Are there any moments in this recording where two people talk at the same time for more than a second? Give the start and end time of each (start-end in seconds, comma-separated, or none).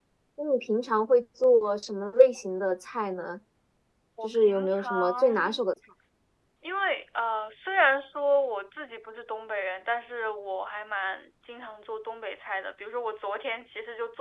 4.2-5.6